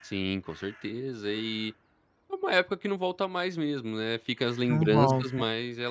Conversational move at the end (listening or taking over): listening